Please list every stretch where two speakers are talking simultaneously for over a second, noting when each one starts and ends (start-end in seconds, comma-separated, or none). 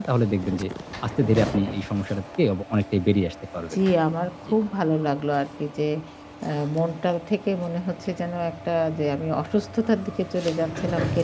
none